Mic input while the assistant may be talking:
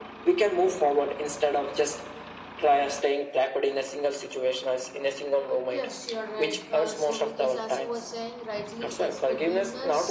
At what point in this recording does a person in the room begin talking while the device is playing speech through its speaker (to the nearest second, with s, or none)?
5 s